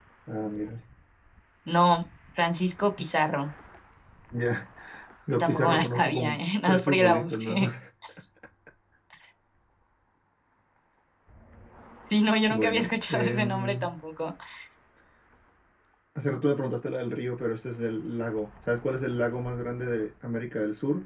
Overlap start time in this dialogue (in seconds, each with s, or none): 5.3 s